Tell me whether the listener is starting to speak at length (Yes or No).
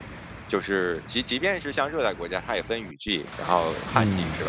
No